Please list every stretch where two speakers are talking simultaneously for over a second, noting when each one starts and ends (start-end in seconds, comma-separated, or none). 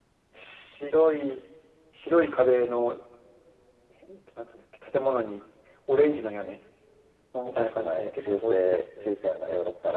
7.4-8.8